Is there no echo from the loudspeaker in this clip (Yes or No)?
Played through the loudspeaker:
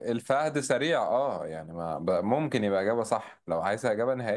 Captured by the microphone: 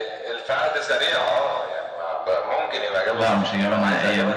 No